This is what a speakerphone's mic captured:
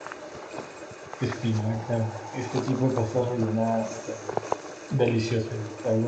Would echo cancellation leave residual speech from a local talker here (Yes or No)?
Yes